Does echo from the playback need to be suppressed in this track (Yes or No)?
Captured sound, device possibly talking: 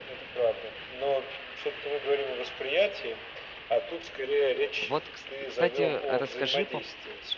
Yes